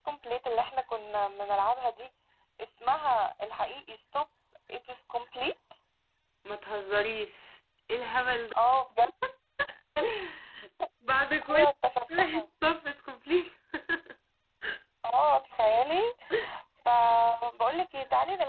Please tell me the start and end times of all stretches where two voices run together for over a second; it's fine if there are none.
none

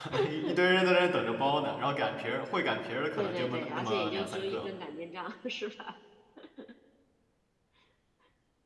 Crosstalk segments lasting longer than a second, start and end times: 3.2-4.7

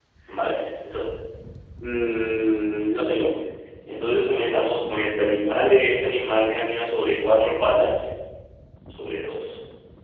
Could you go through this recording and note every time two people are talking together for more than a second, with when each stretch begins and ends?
none

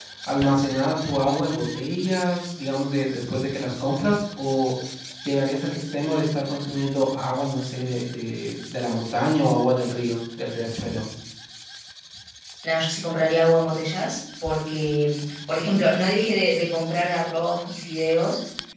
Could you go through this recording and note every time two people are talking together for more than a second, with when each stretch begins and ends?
none

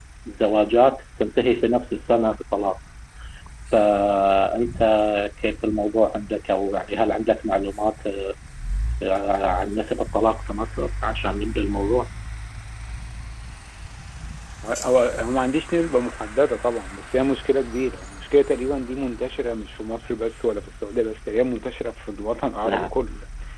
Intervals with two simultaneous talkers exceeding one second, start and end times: none

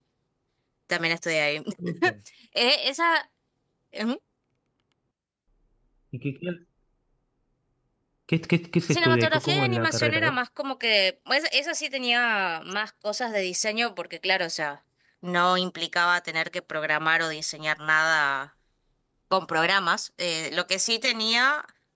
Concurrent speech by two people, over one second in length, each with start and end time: 8.9-10.3

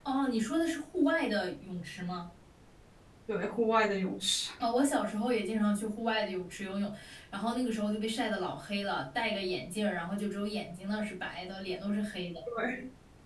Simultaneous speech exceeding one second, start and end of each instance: none

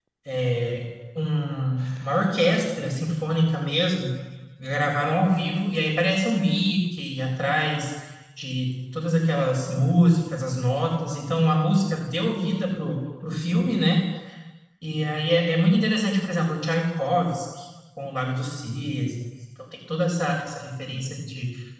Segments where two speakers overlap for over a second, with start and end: none

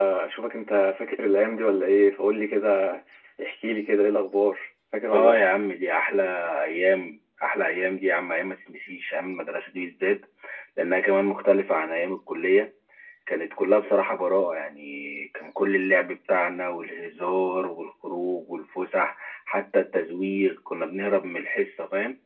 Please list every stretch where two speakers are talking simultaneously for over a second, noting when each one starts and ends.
none

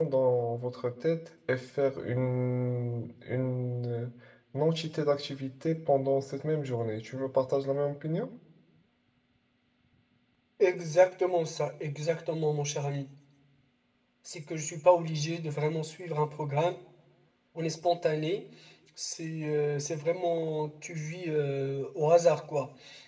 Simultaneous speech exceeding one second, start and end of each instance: none

